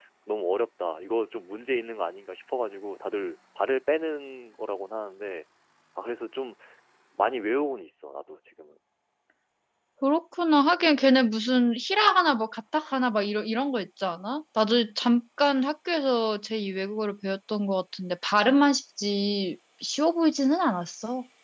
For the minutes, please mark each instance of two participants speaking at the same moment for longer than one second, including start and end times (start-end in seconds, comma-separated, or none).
none